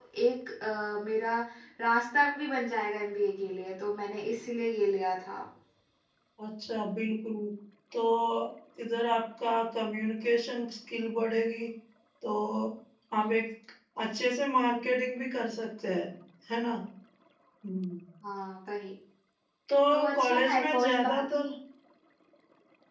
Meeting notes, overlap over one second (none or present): present